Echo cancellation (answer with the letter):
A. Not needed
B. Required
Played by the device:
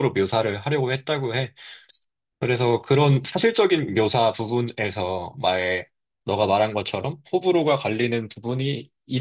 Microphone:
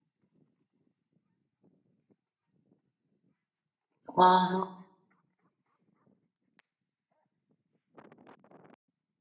A